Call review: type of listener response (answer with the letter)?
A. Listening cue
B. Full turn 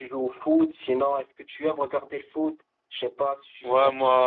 B